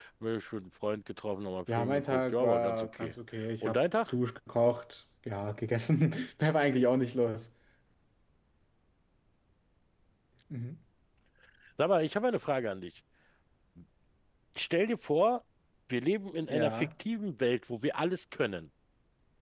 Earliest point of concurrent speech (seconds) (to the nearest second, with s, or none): 2 s